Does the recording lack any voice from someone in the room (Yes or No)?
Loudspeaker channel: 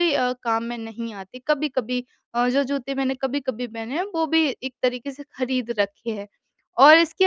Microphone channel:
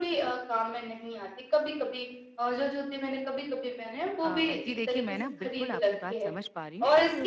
No